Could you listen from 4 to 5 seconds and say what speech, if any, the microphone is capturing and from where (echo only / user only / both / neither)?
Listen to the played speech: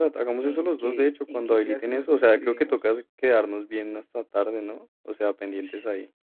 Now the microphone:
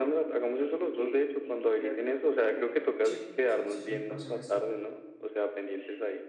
both